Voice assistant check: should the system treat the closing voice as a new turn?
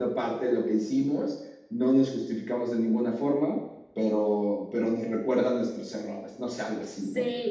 Yes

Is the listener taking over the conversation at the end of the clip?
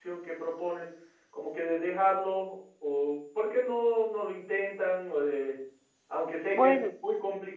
No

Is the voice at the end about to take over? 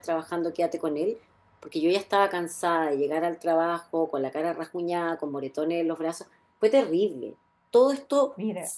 No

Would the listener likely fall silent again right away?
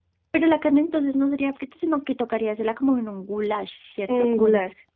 No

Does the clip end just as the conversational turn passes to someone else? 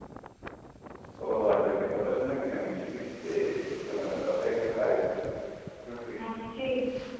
Yes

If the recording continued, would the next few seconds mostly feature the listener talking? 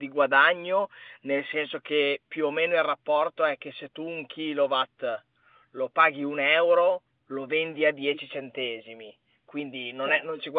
No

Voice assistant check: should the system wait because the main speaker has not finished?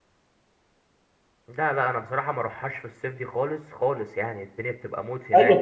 No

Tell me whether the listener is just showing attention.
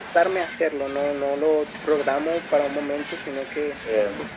Yes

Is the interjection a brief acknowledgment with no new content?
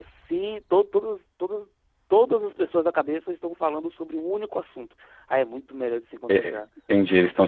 No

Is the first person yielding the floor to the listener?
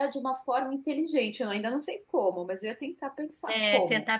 Yes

